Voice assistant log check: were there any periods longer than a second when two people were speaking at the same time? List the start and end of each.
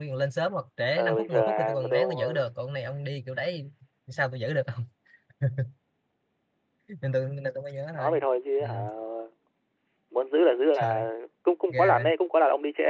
1.0-2.3

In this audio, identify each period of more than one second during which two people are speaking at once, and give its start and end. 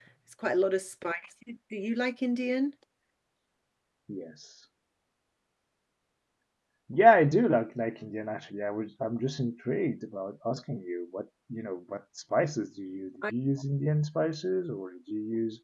none

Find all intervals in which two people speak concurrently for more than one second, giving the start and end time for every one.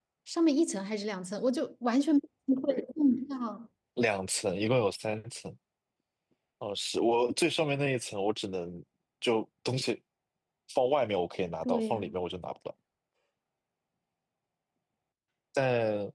none

